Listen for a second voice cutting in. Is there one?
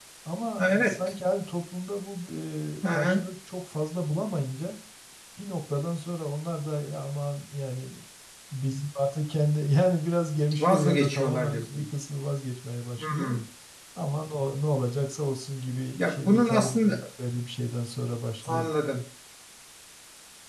Yes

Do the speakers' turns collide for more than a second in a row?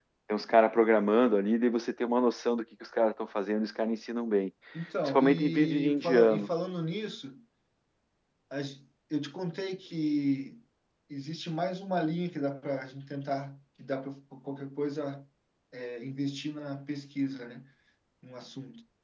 Yes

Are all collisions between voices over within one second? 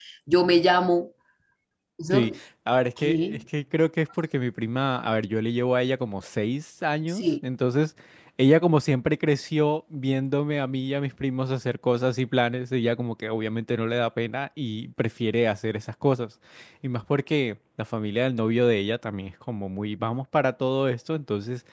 Yes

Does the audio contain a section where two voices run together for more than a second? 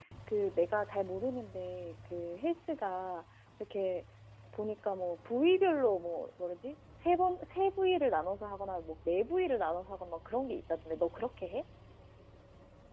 No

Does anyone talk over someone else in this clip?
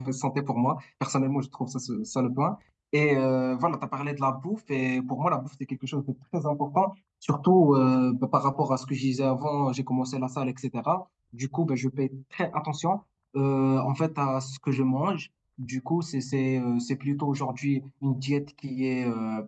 No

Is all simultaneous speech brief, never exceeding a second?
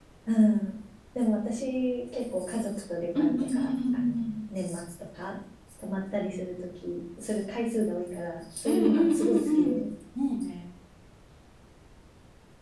No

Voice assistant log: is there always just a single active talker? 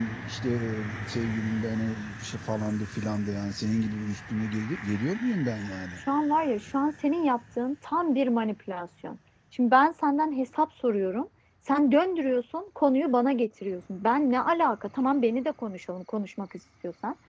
Yes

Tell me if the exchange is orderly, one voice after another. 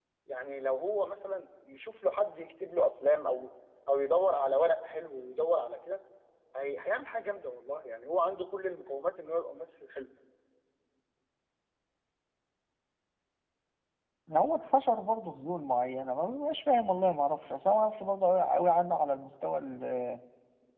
Yes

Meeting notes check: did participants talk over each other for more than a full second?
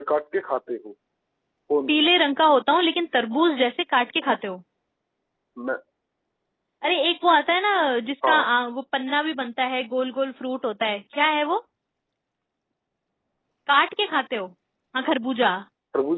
No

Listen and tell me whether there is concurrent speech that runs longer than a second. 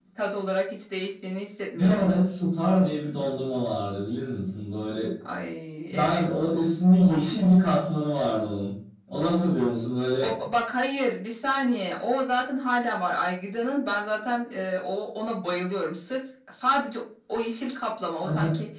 No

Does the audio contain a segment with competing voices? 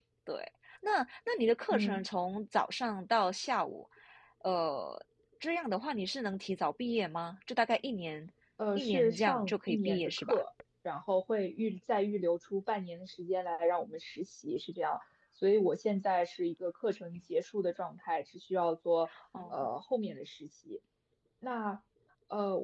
Yes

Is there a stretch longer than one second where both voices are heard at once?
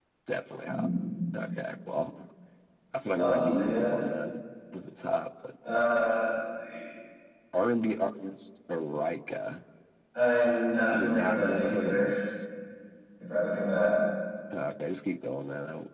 Yes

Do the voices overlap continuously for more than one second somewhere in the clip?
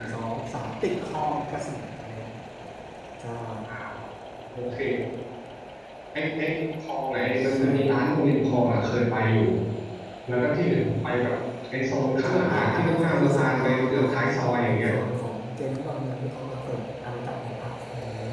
Yes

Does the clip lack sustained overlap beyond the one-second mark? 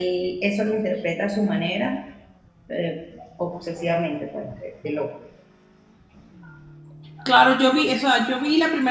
Yes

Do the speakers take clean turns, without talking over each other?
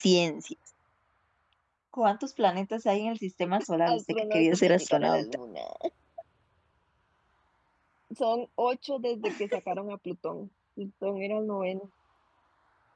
No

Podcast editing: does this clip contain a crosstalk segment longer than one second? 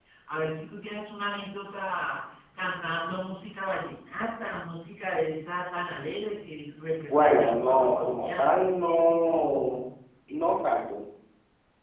Yes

